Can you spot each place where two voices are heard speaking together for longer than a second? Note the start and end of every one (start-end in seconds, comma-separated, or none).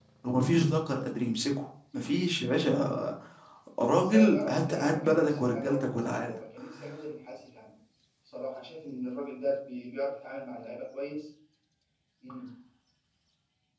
4.0-6.3